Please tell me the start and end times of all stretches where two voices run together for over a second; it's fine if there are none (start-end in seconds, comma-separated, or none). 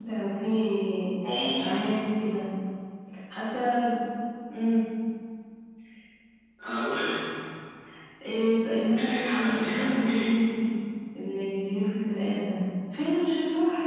8.9-10.3